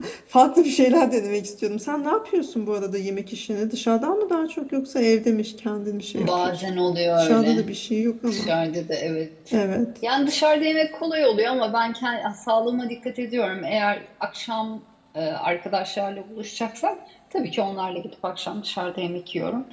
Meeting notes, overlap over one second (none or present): none